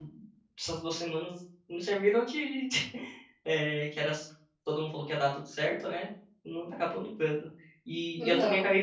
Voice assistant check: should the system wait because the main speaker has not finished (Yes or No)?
Yes